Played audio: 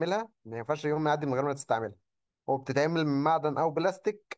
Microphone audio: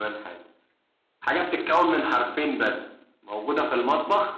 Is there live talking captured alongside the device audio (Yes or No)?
Yes